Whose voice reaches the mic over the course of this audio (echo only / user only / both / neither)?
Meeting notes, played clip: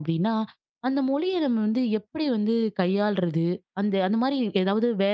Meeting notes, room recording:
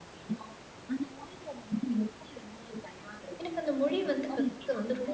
both